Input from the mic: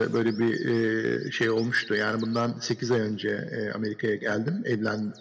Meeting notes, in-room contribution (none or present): none